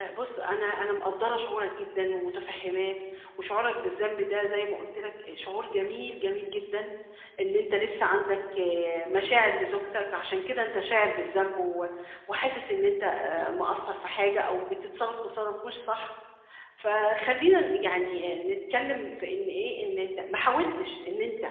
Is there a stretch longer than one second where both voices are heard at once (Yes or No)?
No